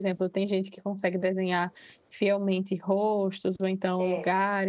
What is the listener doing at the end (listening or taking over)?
listening